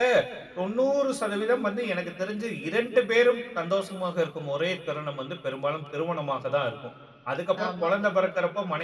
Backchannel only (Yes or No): Yes